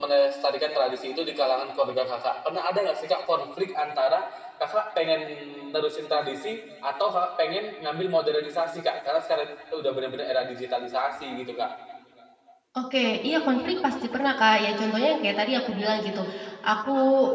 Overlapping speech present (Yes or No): No